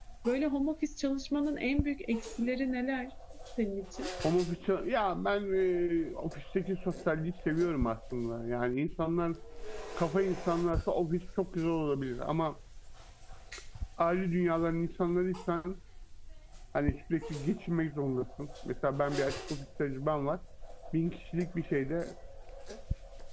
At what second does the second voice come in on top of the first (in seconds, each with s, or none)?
none